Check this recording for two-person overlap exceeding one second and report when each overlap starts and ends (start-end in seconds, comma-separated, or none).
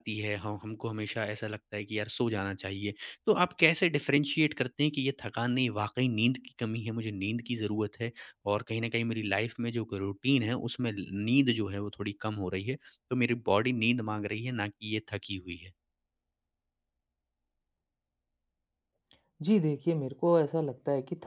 none